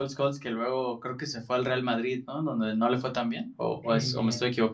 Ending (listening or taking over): taking over